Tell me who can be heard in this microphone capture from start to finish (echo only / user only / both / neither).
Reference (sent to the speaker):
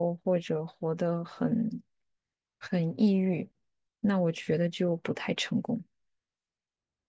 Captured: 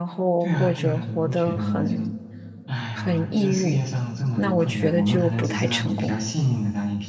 both